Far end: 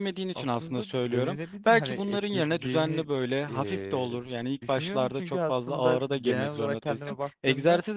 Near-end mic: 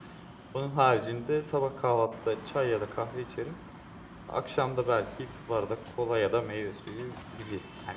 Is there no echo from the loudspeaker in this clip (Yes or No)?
Yes